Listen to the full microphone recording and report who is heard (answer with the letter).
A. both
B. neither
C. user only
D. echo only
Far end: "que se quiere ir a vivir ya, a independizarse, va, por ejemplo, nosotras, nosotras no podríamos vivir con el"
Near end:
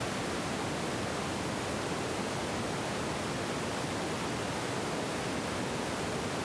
B